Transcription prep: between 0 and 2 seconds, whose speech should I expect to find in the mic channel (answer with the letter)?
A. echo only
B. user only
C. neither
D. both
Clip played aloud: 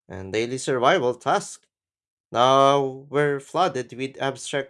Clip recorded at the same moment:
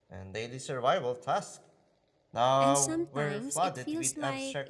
A